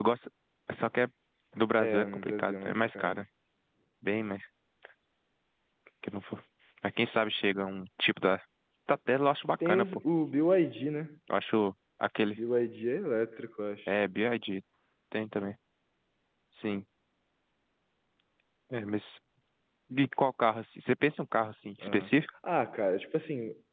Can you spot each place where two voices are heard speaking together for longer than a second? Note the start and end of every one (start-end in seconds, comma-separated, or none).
1.8-3.2